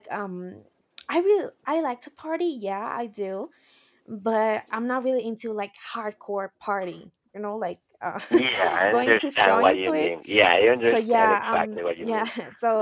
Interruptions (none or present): present